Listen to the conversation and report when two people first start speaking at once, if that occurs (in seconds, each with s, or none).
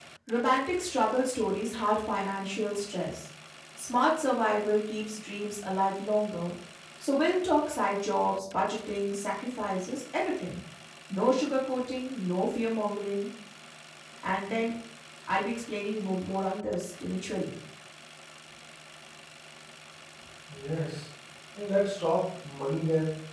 none